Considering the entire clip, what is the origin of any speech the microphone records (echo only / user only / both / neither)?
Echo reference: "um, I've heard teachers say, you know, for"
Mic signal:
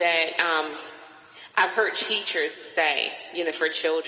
echo only